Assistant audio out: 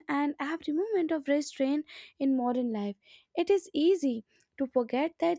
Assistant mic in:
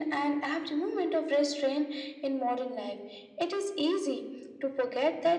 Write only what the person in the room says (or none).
none